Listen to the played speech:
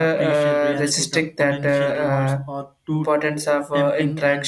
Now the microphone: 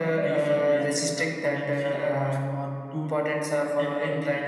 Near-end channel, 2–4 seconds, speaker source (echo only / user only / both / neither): echo only